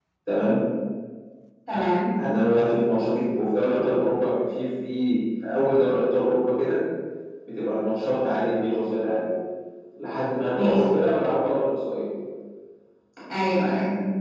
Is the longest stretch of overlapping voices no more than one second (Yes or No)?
Yes